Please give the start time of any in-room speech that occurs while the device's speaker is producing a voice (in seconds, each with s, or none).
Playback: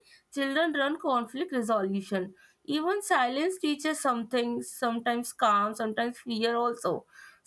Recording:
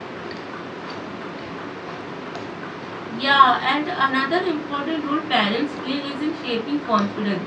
3.1 s